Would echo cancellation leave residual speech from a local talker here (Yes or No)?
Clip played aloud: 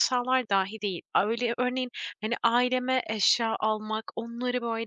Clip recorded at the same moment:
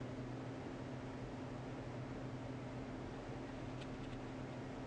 No